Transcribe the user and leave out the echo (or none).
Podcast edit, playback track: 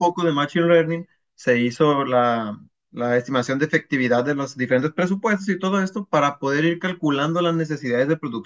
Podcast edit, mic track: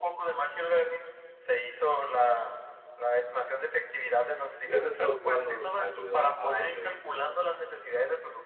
y ese software nos ayuda a medir